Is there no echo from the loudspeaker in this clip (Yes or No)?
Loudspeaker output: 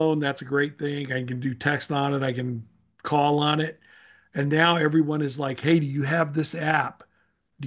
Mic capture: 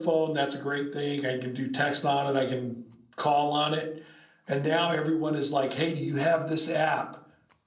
No